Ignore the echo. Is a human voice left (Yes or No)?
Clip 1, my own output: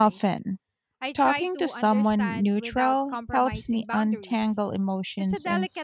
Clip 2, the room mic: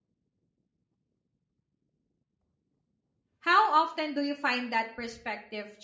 Yes